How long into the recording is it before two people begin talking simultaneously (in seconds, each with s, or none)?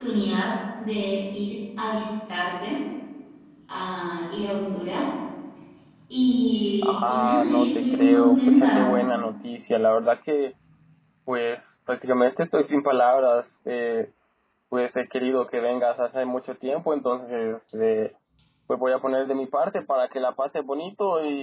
6.8 s